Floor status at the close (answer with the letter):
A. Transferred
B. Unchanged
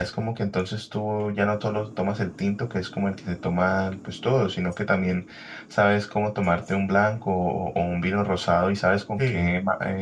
B